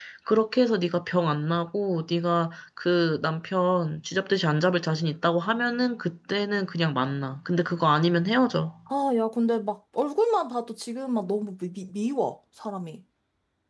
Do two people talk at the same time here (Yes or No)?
No